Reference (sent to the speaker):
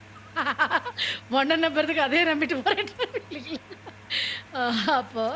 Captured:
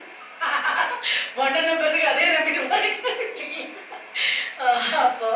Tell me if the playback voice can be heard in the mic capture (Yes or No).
Yes